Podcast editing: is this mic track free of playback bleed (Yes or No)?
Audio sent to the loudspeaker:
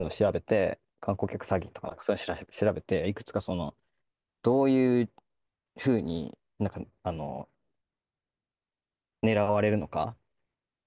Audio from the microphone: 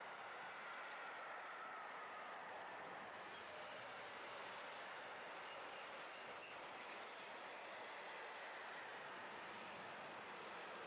Yes